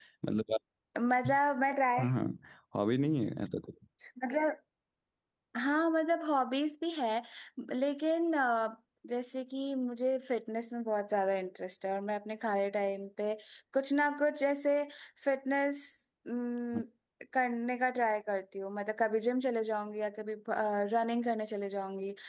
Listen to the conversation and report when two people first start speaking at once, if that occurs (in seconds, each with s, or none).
none